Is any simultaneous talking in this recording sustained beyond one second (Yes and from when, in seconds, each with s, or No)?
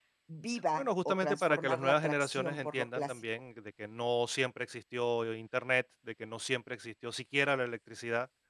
Yes, from 0.8 s